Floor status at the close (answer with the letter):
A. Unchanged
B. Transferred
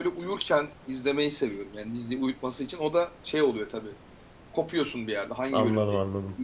B